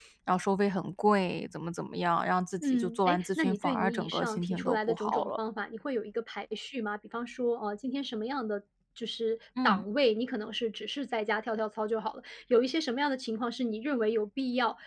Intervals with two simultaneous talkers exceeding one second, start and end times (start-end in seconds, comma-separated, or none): 2.6-5.4